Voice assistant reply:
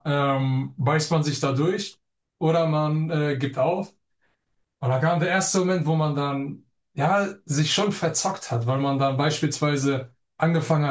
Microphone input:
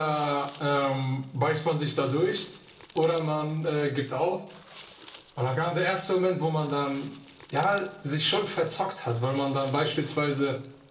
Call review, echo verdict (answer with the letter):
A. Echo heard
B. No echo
A